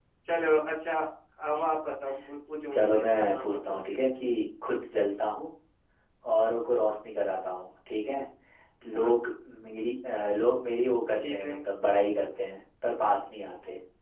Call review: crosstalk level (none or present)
present